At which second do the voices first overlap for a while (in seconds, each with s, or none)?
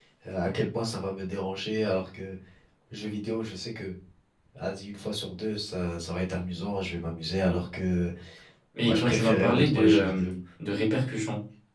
8.9 s